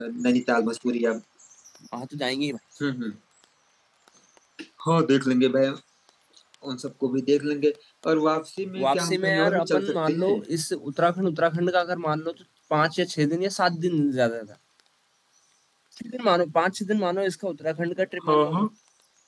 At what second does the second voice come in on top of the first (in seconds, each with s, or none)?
8.8 s